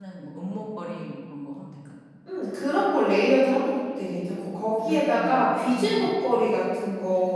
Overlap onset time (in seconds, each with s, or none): 4.8 s